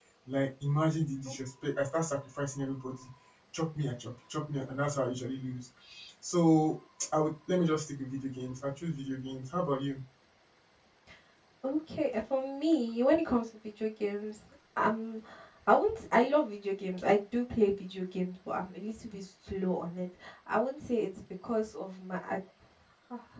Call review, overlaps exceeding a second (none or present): none